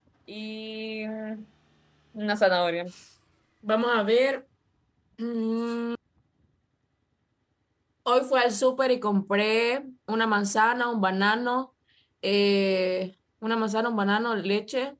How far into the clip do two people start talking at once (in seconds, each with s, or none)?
none